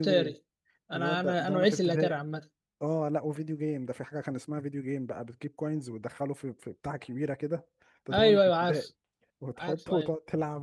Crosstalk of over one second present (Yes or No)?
Yes